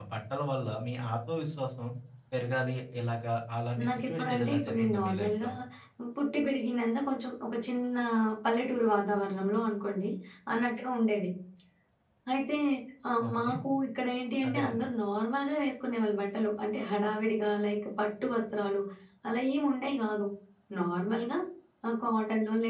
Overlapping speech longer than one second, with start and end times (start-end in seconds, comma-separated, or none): 3.9-5.5